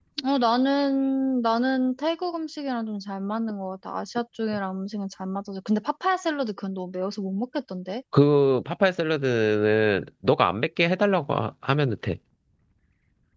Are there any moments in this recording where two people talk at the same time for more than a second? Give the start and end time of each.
none

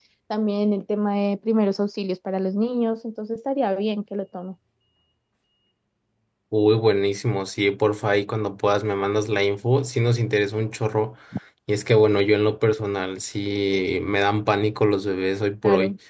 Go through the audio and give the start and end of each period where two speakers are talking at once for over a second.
none

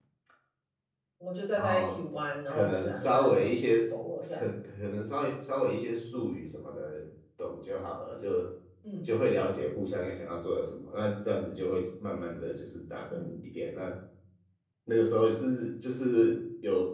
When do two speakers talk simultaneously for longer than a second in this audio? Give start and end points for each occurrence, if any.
2.5-3.8

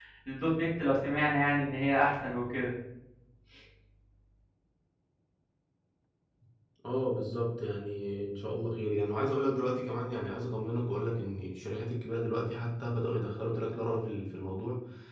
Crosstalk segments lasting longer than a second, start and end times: none

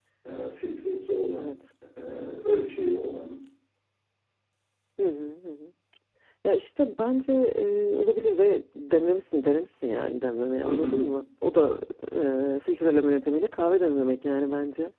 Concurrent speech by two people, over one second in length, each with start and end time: none

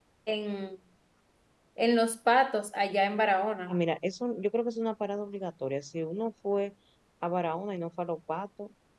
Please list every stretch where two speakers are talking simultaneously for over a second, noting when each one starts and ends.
none

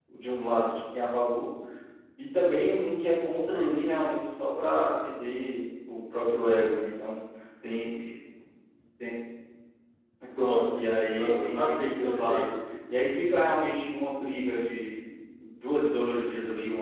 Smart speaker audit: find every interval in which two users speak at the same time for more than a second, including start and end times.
10.4-12.5

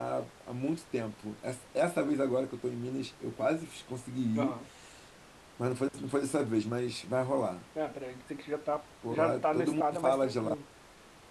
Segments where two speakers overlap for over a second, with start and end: 9.1-10.6

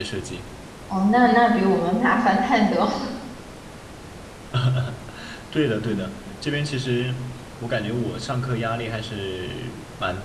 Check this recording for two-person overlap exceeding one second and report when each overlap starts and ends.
none

